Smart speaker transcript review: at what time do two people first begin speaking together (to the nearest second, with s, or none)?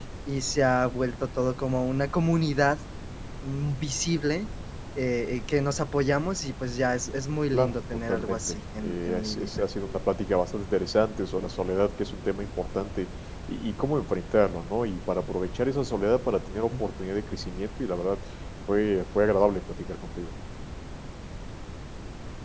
8 s